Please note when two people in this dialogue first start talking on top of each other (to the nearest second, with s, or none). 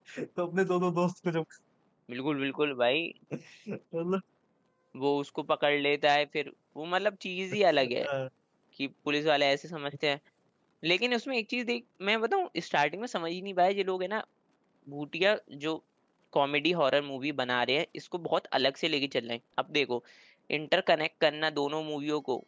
none